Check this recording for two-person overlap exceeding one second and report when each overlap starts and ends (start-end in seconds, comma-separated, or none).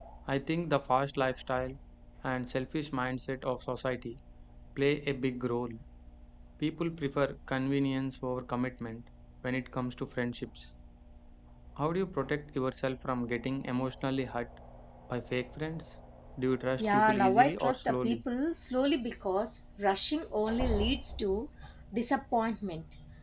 16.8-18.2